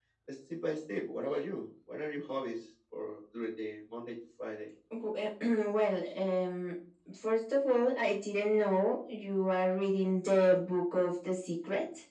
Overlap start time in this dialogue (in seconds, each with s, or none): none